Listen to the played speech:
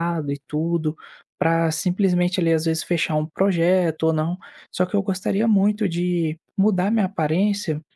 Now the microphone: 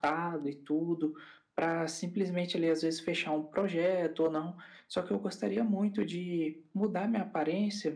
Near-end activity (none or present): none